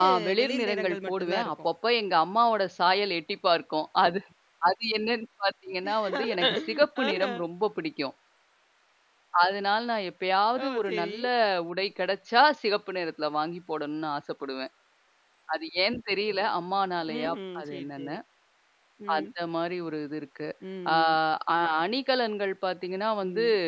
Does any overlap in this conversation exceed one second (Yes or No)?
Yes